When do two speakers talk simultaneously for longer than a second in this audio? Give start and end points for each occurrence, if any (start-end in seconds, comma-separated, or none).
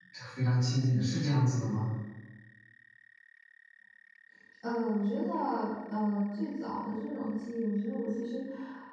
none